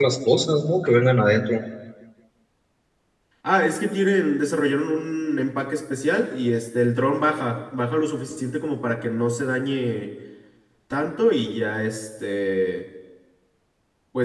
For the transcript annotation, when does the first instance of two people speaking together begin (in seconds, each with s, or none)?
none